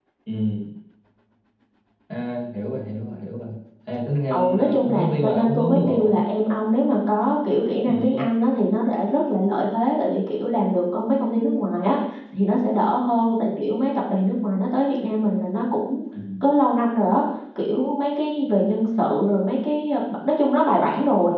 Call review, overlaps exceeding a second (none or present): present